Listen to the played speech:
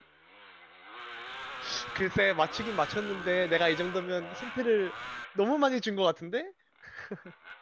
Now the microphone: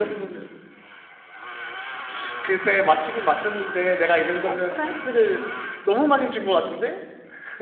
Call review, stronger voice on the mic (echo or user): echo